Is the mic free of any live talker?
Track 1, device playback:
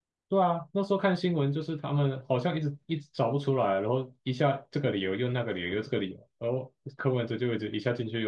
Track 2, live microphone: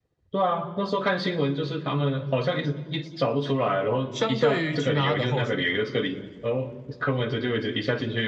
No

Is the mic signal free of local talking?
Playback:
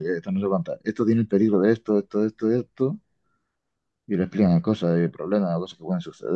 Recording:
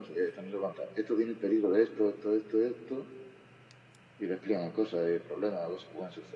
Yes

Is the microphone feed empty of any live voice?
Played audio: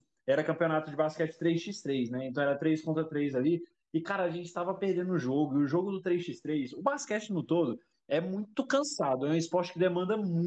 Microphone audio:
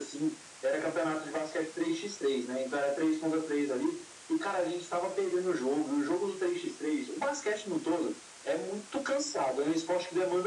Yes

